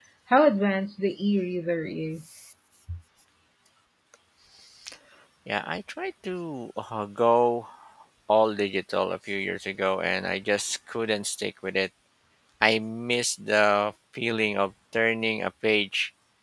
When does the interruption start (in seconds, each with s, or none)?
none